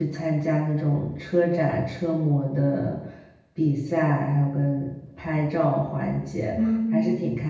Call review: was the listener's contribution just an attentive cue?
Yes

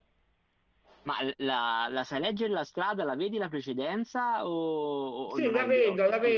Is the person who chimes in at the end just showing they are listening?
No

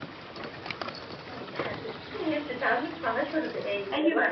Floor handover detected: Yes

